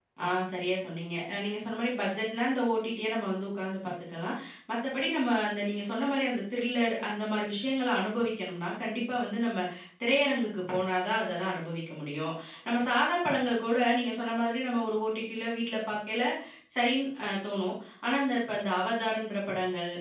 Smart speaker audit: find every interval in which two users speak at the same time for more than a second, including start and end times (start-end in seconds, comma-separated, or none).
none